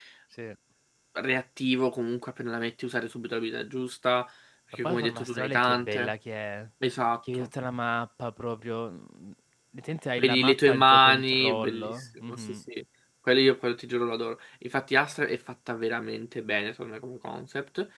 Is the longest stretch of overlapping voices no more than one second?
No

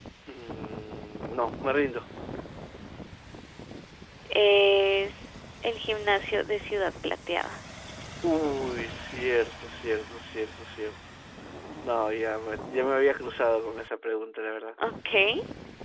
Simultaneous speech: No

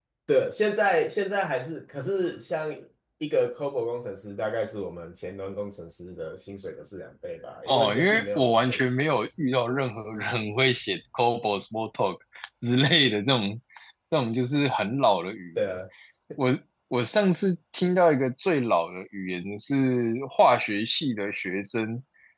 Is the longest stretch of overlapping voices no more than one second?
No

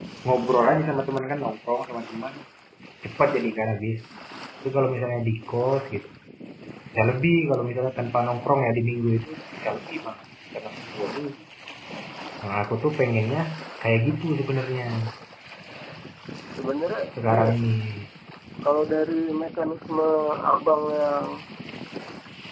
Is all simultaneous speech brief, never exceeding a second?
Yes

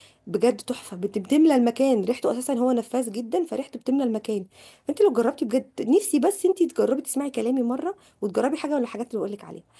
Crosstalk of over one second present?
No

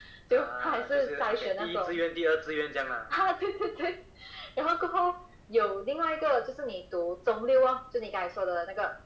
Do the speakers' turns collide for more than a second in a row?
Yes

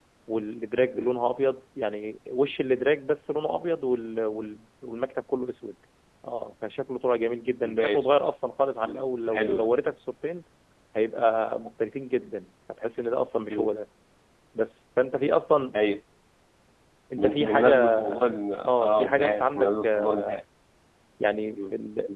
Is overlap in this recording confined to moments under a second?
No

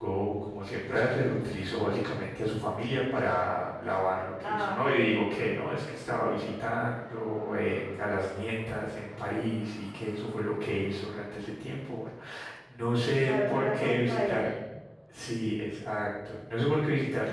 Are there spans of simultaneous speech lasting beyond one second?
Yes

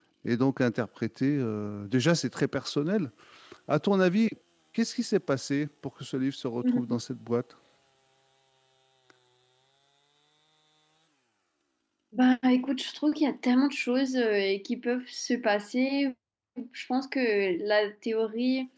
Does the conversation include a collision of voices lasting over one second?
No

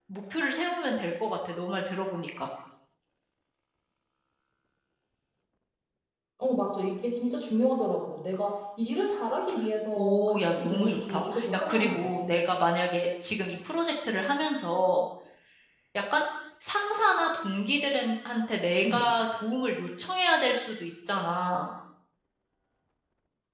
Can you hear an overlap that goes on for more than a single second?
Yes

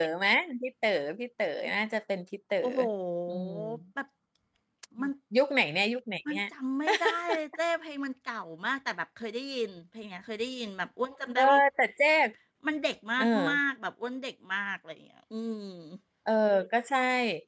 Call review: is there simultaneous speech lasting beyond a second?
No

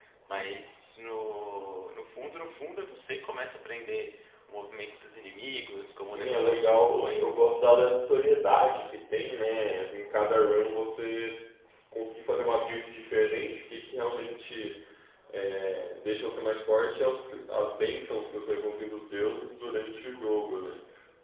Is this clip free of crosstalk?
No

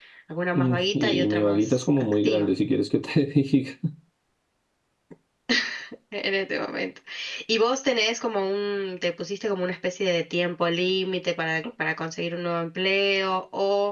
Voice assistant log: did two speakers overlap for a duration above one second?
Yes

